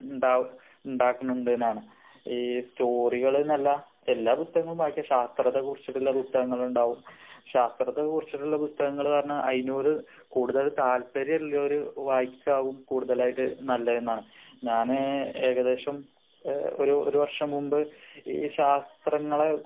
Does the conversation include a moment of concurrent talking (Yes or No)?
No